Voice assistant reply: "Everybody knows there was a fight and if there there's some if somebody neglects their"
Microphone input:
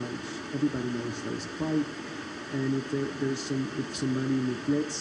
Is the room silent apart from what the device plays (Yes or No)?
Yes